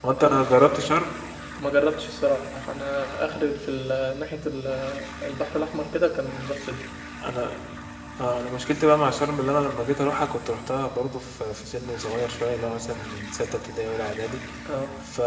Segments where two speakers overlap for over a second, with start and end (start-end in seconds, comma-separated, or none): none